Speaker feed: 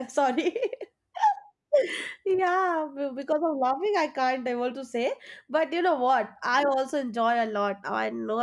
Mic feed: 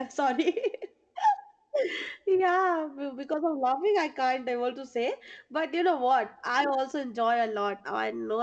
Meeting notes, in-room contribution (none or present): none